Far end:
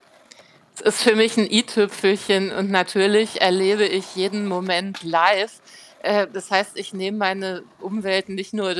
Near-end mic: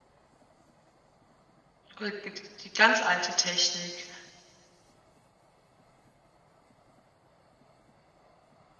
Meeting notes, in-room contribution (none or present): present